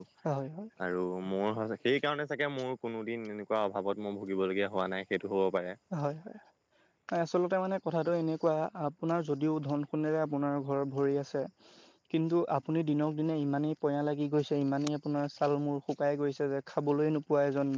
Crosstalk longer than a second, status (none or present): none